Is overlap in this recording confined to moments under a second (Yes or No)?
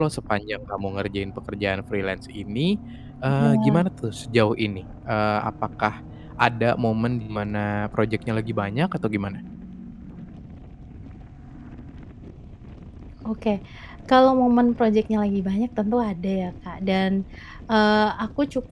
Yes